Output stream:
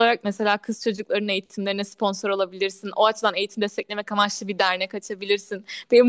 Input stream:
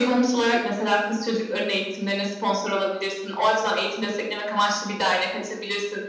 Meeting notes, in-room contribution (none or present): none